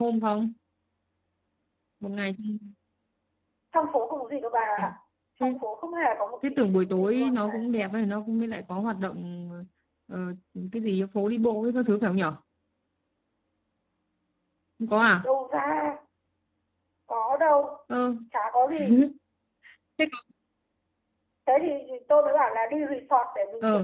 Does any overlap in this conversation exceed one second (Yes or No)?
Yes